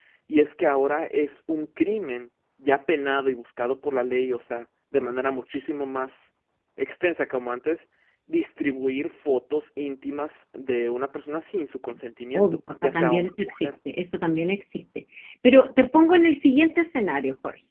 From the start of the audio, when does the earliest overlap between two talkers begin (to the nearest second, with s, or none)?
12 s